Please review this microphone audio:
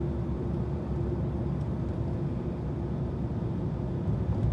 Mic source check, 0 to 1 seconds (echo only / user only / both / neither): neither